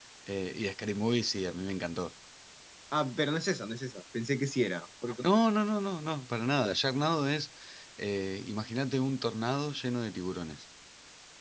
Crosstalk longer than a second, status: none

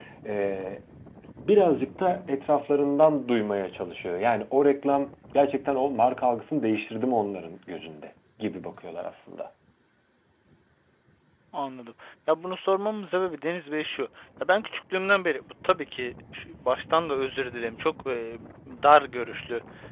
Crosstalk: none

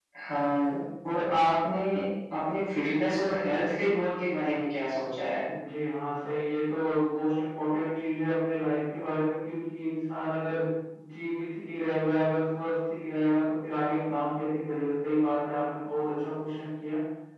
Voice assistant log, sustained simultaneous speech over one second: none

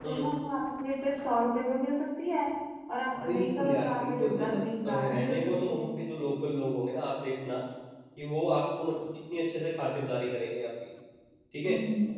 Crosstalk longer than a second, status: present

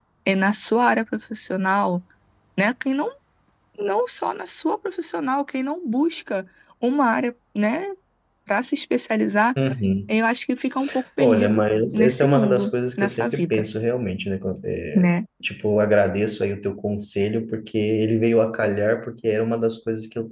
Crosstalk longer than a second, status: present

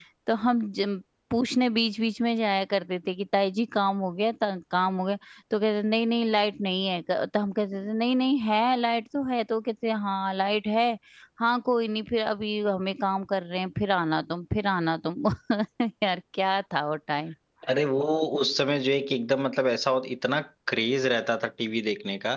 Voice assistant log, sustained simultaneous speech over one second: none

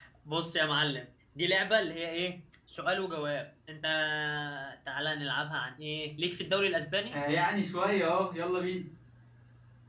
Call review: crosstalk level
none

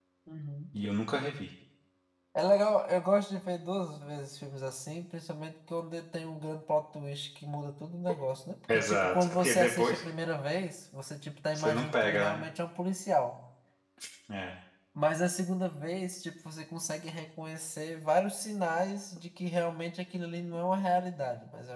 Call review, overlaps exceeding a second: present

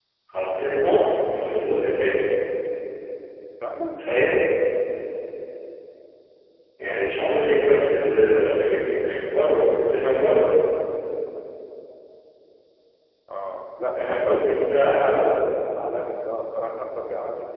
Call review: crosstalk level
present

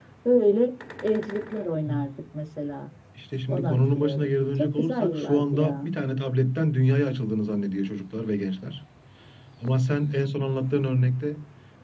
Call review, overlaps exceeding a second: present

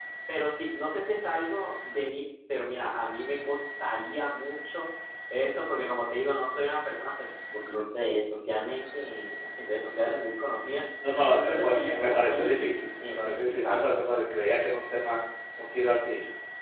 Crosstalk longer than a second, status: present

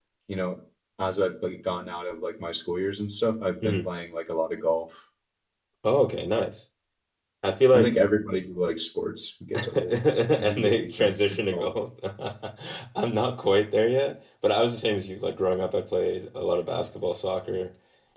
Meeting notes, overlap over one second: present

